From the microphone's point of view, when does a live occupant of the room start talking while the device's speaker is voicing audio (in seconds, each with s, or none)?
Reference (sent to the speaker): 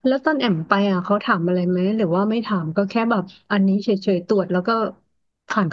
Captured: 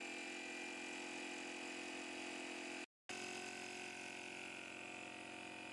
none